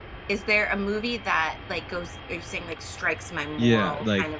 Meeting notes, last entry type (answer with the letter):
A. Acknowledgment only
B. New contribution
B